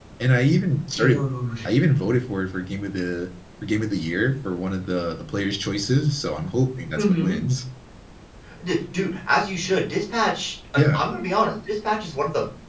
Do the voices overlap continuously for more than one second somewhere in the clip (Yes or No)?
No